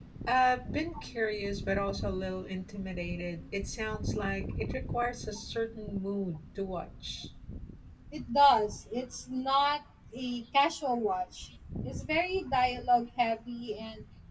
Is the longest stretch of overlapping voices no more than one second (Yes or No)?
Yes